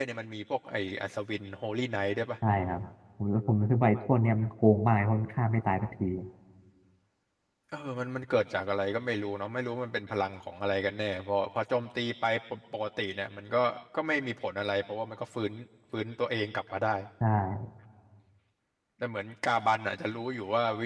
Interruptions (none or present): none